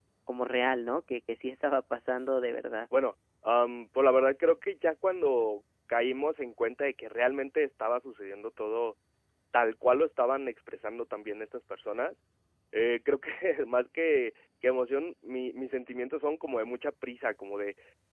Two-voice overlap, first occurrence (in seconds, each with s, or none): none